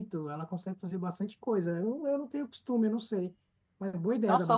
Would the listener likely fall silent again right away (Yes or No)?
No